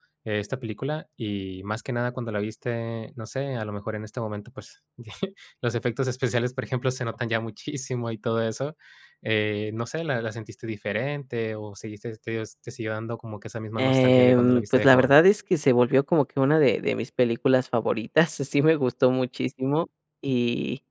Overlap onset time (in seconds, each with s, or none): 13.8 s